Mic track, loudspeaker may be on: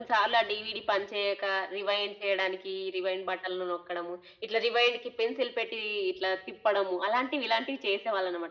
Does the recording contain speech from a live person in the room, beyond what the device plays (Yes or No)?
No